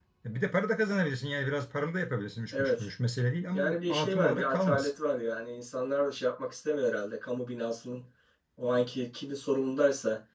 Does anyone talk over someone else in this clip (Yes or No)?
Yes